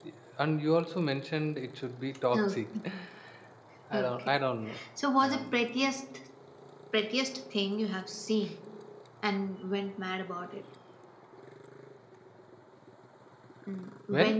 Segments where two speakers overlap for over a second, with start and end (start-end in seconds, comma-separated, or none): none